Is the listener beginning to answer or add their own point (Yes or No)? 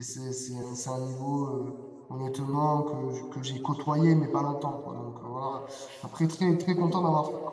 No